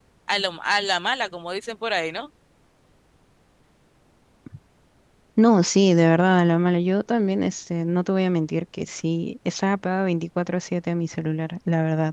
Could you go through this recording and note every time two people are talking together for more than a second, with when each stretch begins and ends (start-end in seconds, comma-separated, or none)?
none